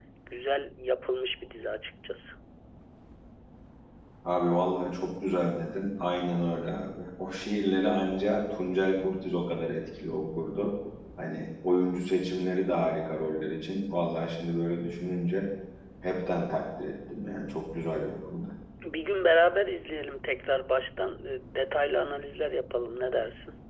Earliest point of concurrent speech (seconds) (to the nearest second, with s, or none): none